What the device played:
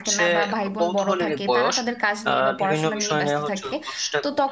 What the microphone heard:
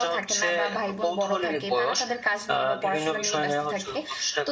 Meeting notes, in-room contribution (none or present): none